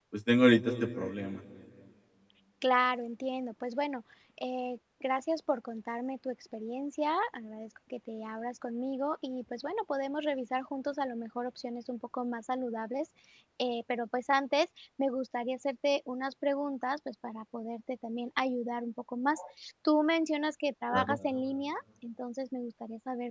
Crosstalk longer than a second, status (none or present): none